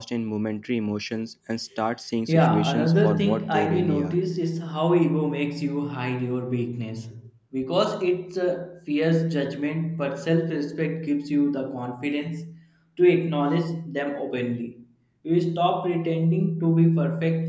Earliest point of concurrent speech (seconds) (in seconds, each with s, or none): 2.3 s